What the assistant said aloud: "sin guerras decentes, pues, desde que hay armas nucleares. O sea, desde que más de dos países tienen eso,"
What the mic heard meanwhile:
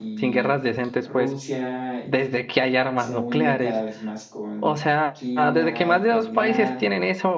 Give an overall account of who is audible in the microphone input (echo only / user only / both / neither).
both